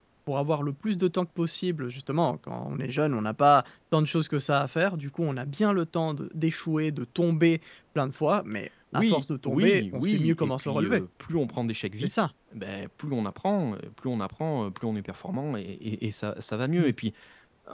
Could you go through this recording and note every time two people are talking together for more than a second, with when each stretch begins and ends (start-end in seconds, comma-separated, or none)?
8.9-11.0